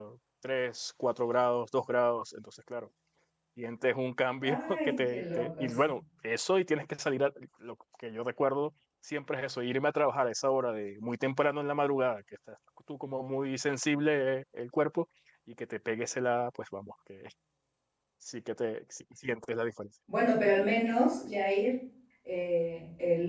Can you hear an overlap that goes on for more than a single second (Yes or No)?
Yes